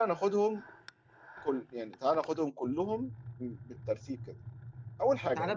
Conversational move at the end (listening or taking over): taking over